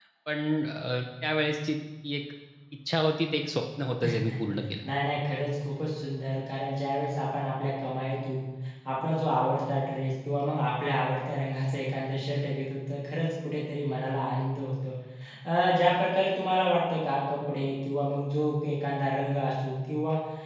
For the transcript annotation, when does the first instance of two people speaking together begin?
none

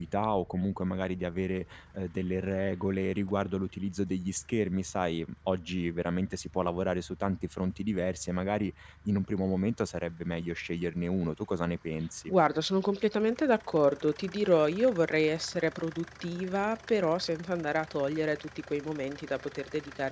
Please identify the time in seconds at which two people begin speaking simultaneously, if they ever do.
none

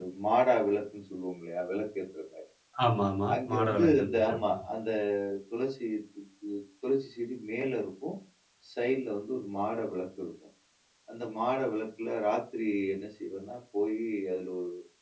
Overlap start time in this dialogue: 3 s

